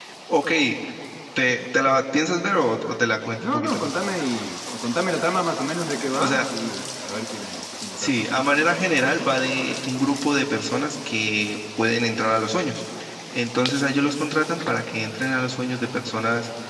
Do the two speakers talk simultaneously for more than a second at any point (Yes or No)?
No